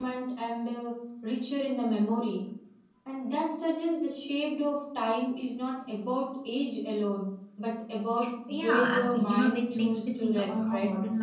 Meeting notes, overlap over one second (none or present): present